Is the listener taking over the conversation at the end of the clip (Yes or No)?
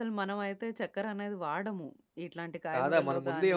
Yes